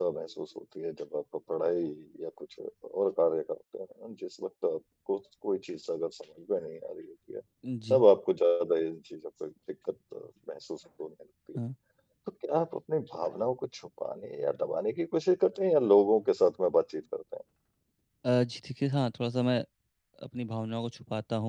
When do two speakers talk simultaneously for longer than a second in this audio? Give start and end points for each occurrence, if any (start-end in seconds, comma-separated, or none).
none